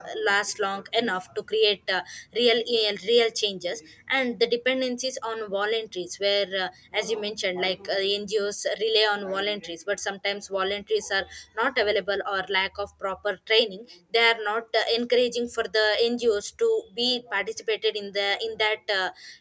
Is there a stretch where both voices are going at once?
No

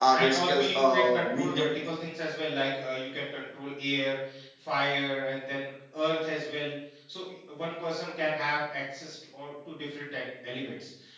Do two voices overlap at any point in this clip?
Yes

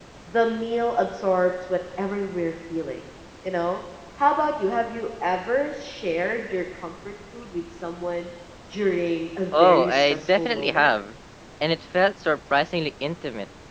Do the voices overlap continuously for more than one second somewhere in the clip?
Yes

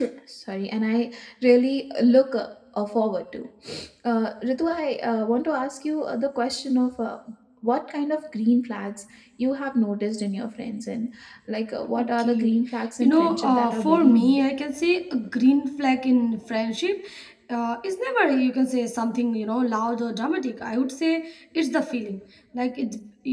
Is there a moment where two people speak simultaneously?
Yes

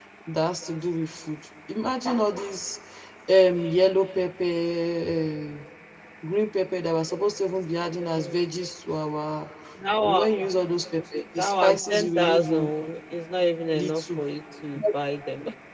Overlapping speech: Yes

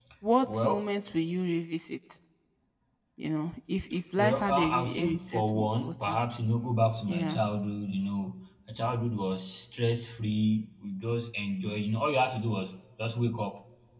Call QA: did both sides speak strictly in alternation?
No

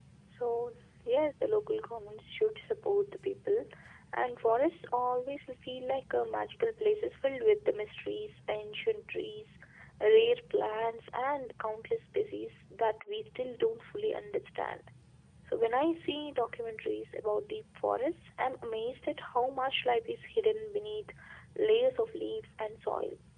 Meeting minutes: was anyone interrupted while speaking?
No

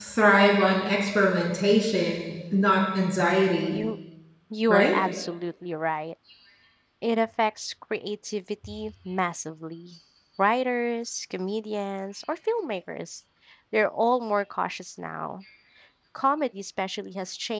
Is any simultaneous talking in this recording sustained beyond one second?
No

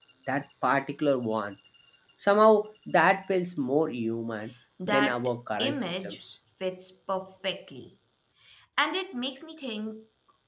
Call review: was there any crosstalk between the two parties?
Yes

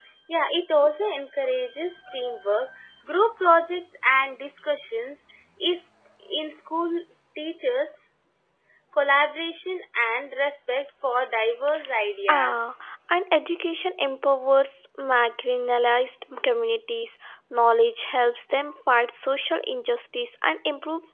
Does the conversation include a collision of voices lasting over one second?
No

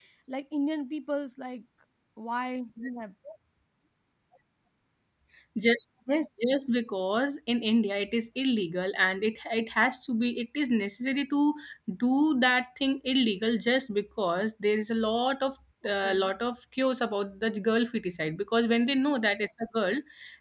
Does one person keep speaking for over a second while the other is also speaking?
No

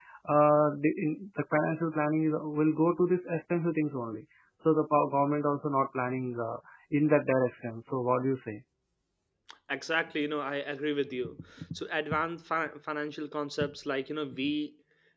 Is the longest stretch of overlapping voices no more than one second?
Yes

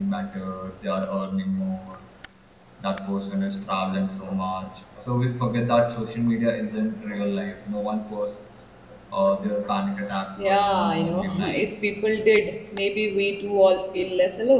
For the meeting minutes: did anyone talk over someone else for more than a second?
Yes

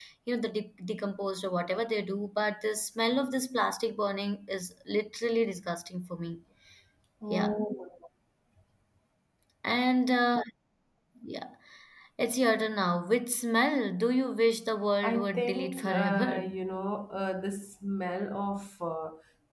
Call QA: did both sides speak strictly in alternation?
No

